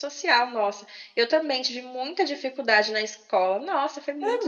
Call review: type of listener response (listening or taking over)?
taking over